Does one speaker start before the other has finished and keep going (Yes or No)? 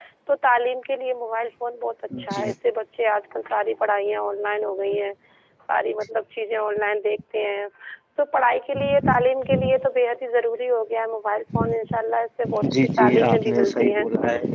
Yes